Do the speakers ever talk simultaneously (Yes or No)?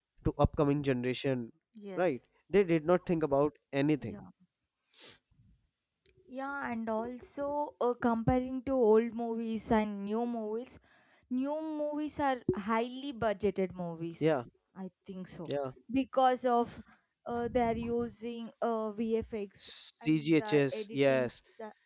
Yes